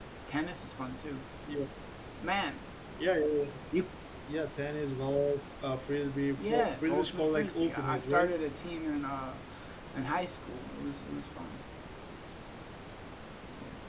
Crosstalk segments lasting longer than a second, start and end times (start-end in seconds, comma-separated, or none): 6.4-8.3